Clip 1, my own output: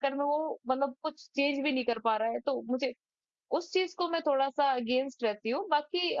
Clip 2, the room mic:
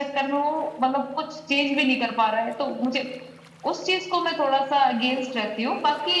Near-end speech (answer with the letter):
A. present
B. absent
B